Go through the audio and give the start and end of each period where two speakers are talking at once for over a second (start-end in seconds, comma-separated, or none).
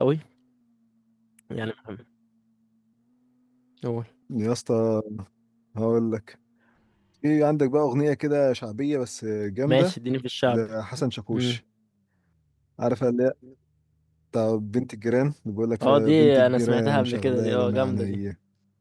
15.8-18.2